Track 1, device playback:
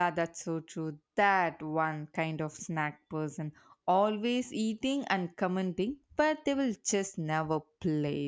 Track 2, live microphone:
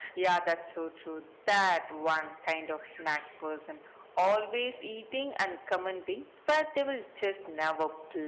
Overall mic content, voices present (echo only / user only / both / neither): echo only